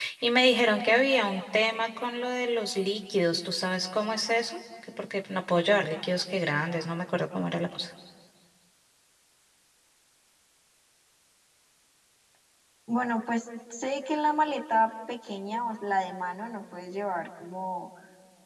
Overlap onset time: none

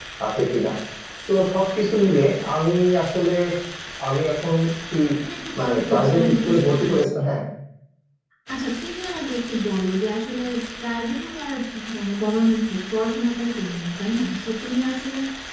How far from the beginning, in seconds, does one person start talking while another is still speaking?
5.6 s

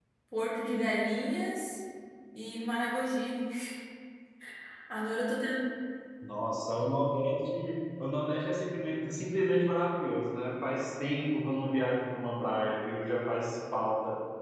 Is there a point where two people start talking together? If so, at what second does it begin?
none

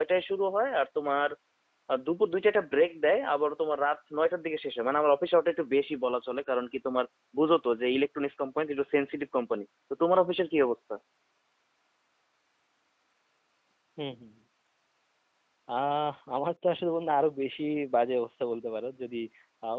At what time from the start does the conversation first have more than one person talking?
none

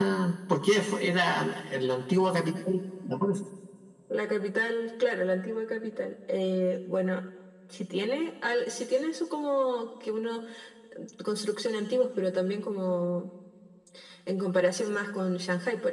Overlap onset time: none

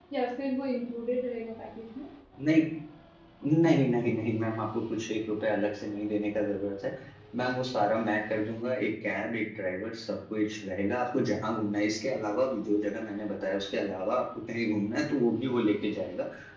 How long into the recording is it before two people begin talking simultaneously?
none

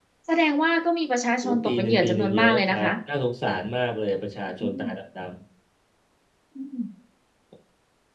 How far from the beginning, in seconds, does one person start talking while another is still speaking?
1.4 s

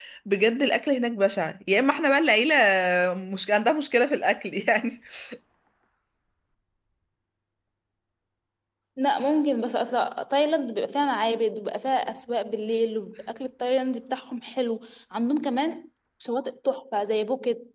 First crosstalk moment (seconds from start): none

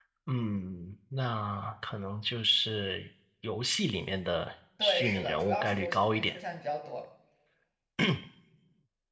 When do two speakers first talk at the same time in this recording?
4.8 s

